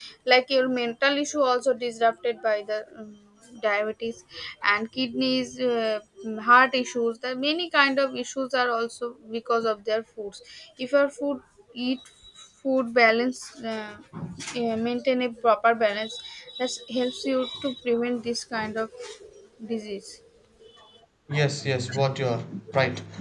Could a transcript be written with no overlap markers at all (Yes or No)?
Yes